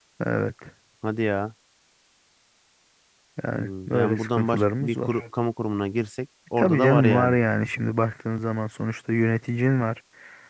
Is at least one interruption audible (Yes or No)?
Yes